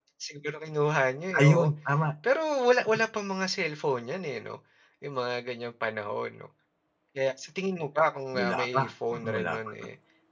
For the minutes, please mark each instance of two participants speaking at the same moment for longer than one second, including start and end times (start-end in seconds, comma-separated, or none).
8.3-9.6